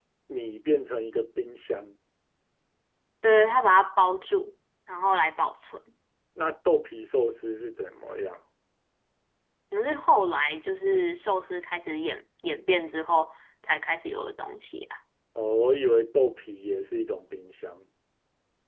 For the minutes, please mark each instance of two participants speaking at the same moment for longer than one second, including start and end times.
none

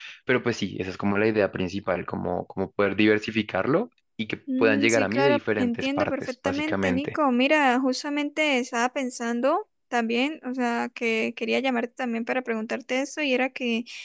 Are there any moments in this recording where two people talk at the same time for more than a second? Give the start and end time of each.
4.6-7.1

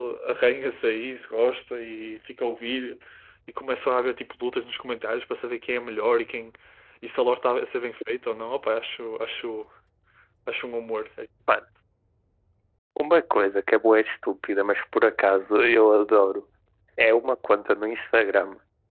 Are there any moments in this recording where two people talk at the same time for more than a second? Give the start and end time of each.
none

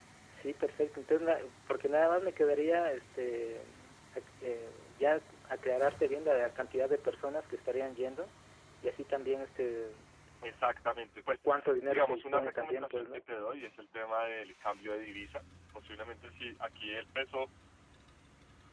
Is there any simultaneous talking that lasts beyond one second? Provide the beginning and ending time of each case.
11.9-13.2

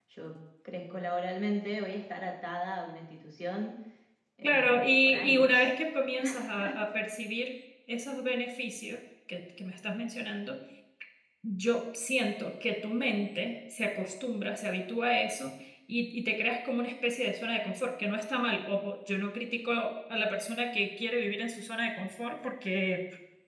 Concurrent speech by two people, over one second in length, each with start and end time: 4.4-5.7

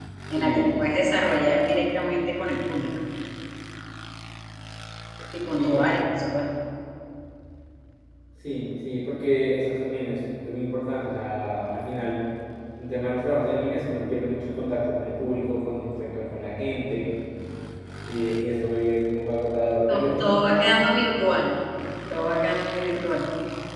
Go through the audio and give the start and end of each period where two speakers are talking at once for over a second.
19.9-21.4

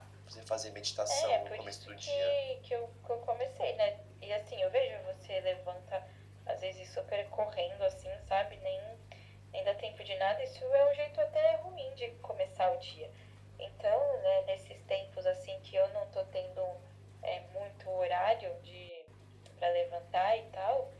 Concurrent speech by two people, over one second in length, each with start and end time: 1.1-2.4

